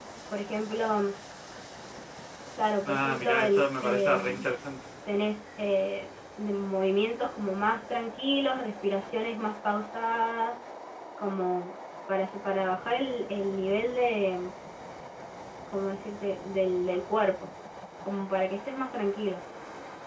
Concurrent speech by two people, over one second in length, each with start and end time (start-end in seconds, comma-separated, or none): 2.8-4.4